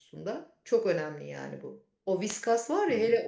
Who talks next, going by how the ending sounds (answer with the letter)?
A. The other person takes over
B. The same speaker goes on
B